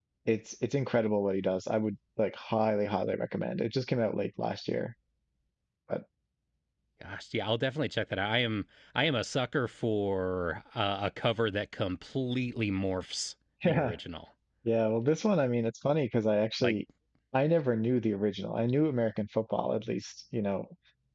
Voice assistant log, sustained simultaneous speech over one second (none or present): none